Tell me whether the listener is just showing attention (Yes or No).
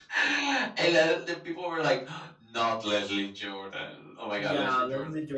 No